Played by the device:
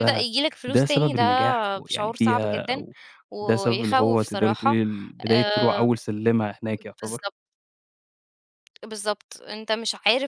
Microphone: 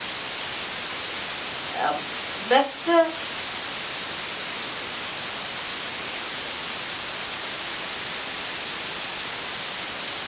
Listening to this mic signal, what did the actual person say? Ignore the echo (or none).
آمم بس